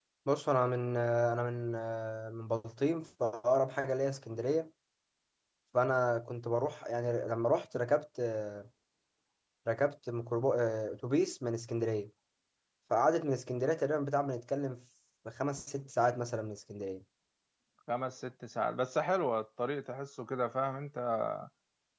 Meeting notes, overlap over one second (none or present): none